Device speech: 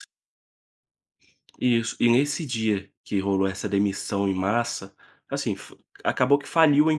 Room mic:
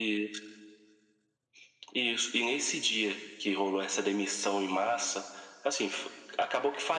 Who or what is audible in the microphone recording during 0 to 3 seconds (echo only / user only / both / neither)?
echo only